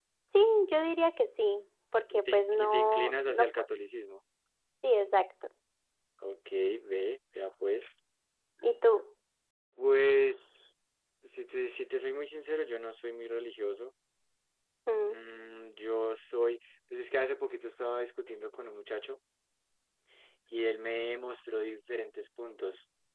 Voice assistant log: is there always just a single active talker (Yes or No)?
No